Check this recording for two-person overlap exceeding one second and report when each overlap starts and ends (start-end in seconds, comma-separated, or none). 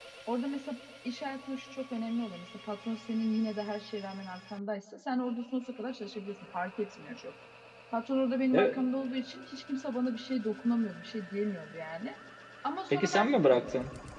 none